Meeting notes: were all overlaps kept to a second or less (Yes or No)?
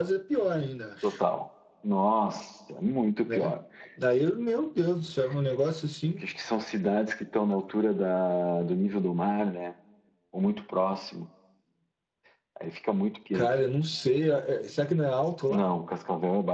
Yes